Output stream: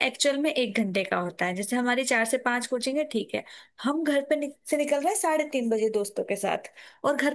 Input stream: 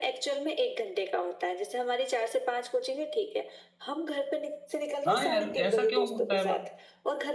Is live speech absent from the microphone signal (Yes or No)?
No